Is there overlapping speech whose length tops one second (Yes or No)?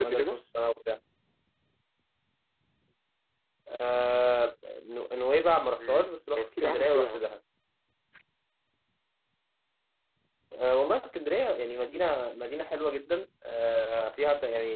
Yes